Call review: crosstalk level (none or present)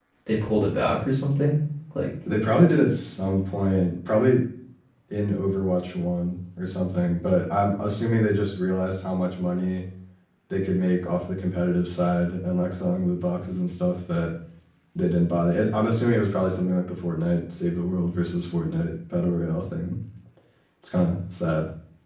none